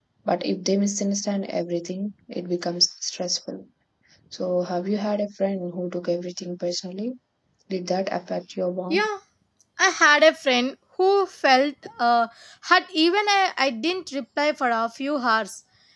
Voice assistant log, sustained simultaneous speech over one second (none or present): none